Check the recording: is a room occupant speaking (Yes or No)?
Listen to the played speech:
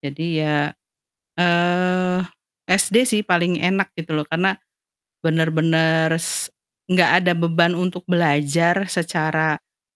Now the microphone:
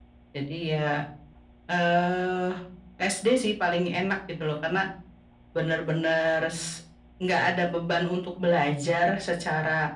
No